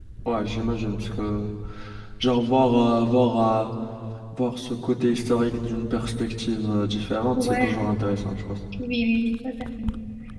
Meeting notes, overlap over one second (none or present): none